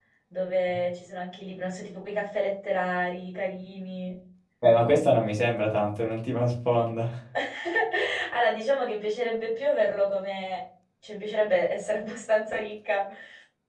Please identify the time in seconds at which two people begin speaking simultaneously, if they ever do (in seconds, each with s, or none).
none